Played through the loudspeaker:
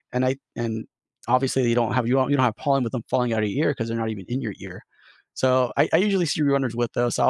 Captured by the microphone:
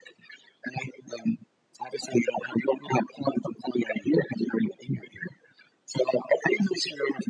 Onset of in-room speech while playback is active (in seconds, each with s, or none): none